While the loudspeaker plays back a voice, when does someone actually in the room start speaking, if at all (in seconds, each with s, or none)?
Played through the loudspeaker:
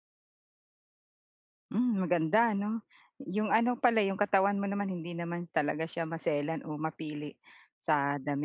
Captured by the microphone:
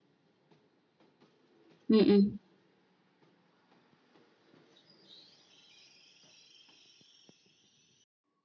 1.9 s